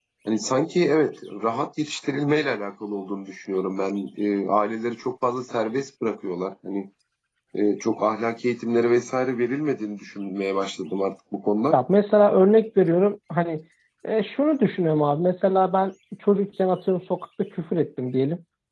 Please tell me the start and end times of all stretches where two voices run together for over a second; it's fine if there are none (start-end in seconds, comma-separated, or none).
none